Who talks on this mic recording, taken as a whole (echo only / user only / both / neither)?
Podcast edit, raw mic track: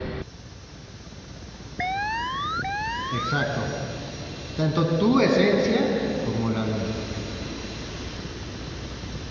user only